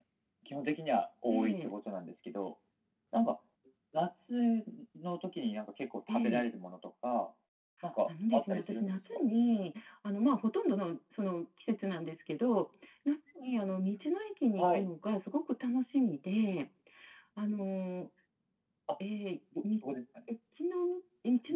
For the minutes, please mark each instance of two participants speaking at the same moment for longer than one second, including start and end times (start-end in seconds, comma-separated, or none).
8.1-9.3